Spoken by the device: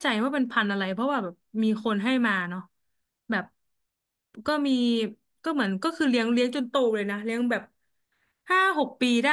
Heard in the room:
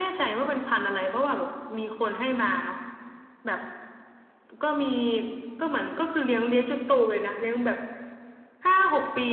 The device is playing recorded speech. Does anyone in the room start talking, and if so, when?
none

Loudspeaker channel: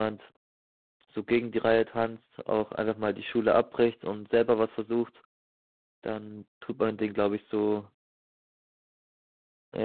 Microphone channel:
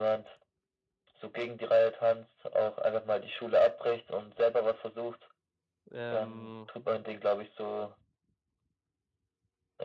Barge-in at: 5.9 s

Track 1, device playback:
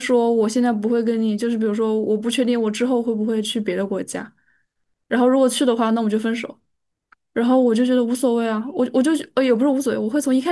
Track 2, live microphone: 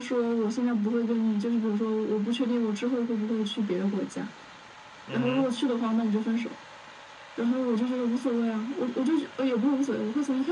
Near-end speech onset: 5.0 s

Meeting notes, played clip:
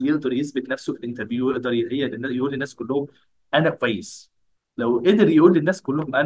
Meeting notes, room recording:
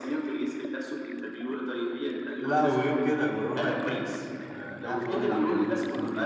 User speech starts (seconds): 2.4 s

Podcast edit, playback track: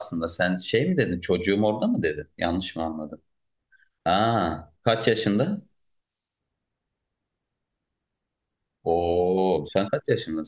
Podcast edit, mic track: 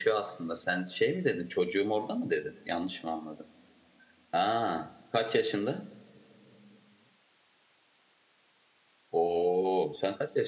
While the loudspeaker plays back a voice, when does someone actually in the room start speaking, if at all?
none

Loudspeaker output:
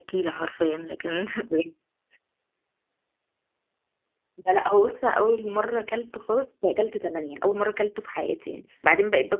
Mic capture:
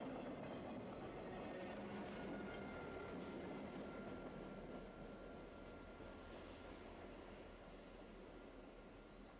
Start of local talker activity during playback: none

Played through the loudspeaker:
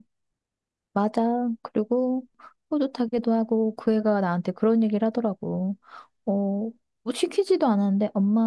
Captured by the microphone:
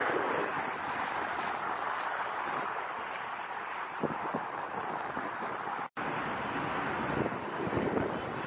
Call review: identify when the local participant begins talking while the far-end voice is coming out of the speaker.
none

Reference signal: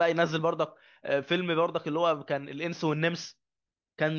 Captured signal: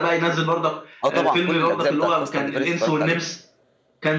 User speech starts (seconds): 1.0 s

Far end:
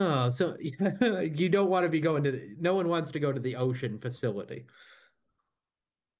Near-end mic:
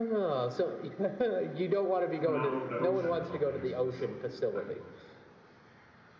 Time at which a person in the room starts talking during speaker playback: 2.1 s

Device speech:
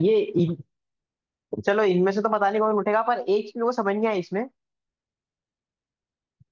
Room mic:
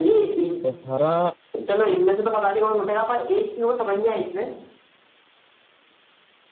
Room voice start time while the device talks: 0.4 s

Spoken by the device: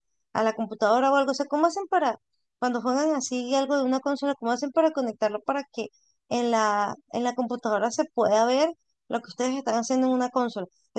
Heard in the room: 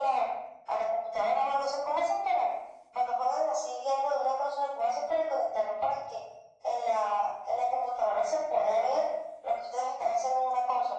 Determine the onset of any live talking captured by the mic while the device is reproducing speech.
none

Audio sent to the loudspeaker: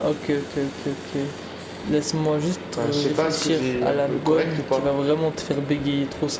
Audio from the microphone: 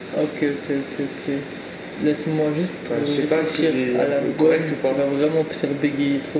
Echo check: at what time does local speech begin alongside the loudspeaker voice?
none

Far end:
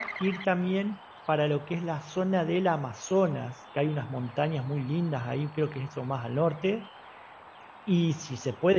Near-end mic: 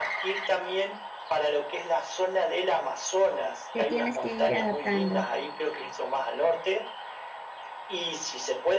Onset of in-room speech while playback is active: 3.7 s

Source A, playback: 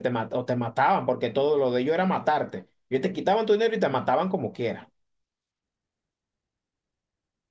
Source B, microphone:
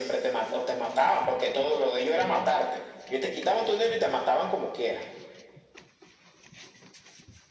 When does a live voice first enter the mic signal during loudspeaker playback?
none

